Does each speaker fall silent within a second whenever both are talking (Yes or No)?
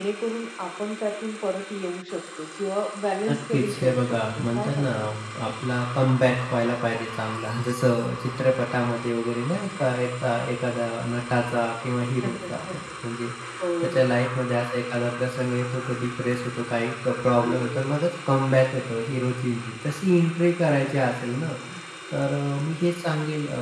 No